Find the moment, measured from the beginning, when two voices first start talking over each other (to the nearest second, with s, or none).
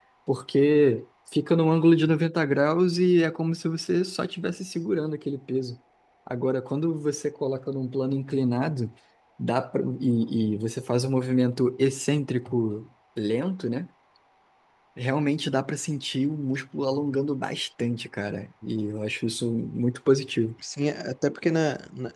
none